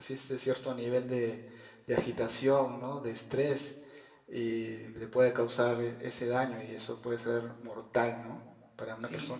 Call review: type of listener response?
taking over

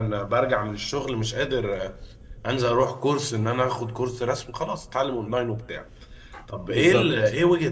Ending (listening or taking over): listening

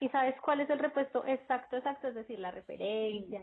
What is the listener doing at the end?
taking over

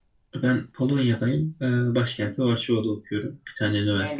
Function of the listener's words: taking over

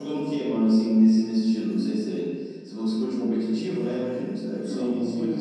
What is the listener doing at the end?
taking over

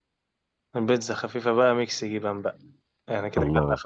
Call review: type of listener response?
listening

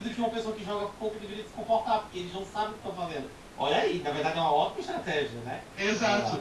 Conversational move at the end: taking over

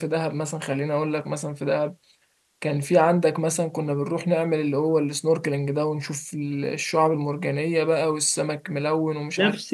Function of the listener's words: taking over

